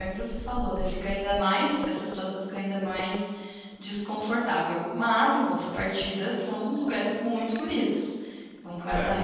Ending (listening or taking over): listening